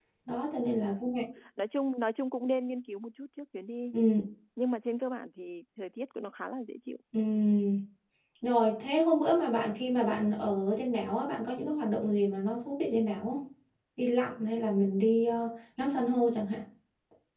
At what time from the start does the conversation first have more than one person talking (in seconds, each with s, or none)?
none